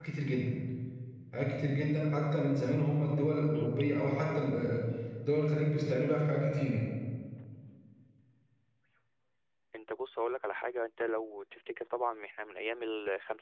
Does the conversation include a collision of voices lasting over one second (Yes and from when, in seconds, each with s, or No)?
No